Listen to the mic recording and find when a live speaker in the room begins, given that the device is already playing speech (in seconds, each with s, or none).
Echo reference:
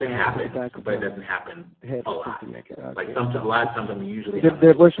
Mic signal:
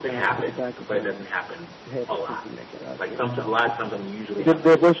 none